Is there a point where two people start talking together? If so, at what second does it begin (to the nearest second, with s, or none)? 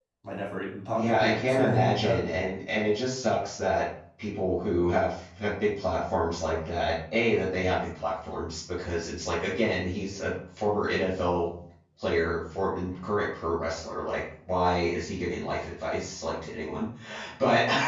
1 s